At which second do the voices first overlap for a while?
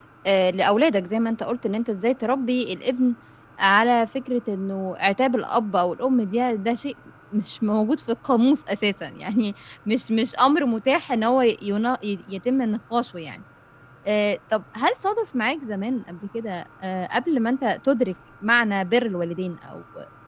none

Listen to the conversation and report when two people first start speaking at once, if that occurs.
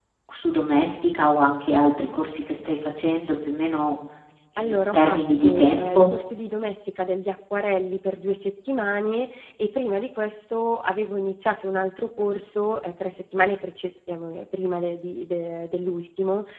4.6 s

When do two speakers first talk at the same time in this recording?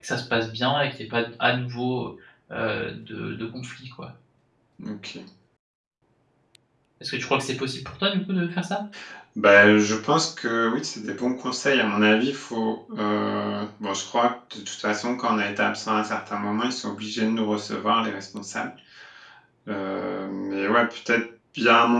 none

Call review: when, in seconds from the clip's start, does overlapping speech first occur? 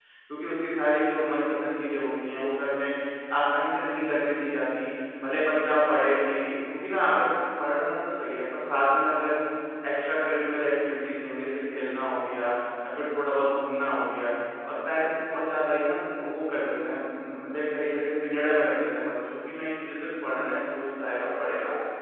none

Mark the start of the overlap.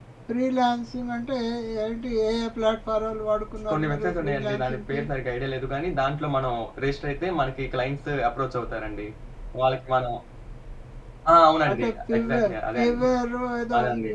3.7 s

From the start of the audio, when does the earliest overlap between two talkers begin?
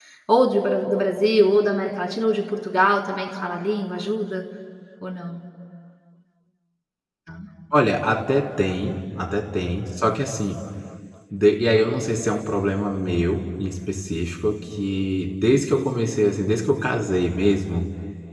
none

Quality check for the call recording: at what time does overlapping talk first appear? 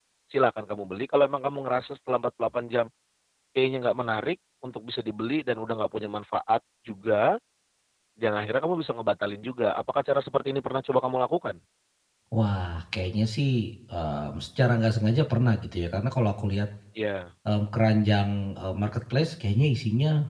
none

